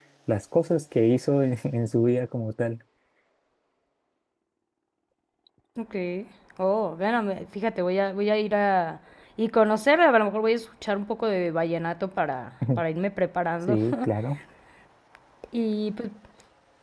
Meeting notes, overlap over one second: none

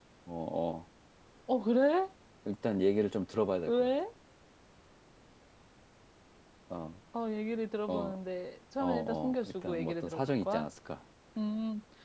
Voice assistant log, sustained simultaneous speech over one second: present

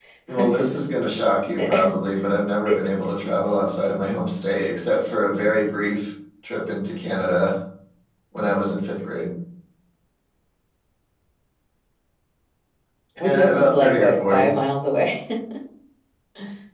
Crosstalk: present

